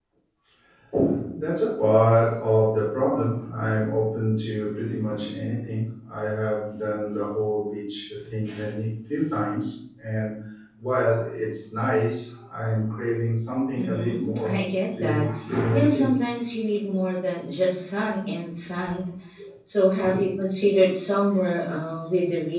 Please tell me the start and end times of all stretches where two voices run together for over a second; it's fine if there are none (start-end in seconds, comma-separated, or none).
13.8-15.2